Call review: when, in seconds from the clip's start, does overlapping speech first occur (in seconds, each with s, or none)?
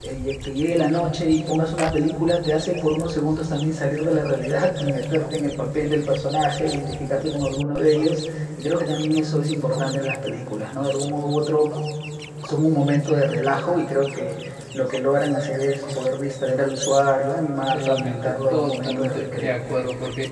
17.7 s